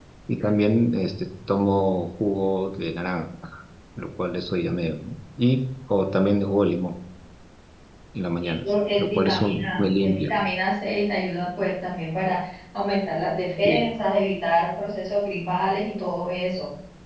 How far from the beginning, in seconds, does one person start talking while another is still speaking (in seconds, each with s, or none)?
8.4 s